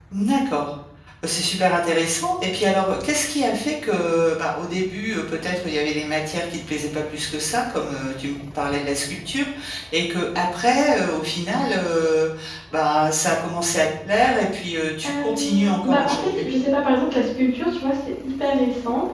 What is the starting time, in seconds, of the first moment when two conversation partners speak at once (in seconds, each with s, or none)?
15.0 s